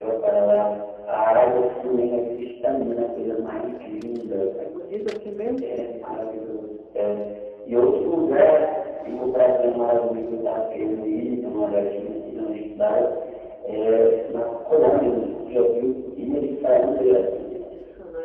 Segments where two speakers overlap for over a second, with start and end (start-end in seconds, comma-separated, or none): none